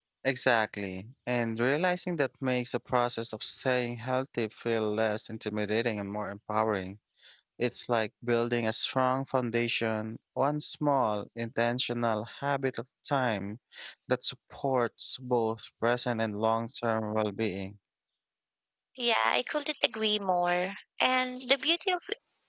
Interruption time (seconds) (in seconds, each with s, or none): none